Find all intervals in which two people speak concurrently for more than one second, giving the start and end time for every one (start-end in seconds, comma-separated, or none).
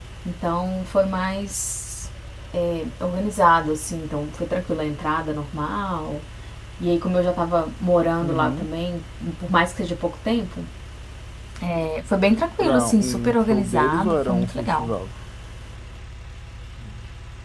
12.6-14.9